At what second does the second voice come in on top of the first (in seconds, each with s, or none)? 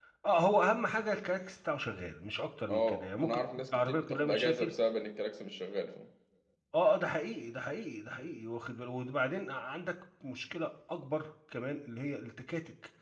2.7 s